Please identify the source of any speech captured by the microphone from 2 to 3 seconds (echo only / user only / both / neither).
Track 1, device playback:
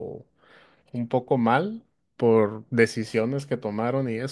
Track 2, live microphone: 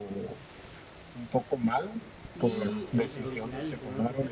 both